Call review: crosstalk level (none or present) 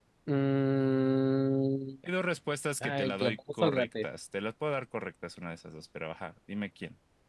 present